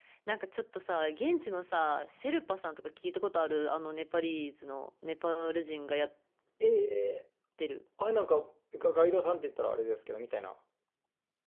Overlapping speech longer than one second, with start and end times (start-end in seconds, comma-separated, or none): none